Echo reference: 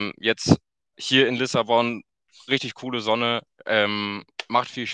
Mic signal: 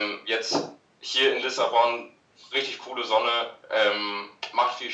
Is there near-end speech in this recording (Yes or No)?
No